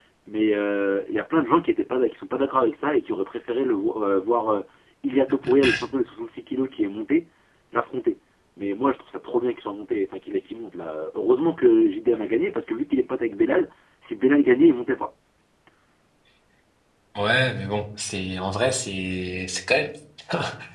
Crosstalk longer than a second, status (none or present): none